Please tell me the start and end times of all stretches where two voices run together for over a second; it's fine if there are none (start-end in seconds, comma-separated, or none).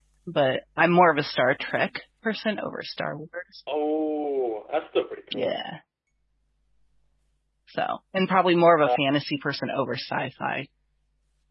none